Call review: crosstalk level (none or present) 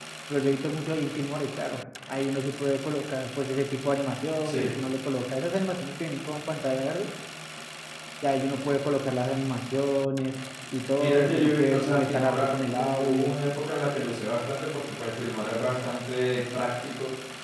present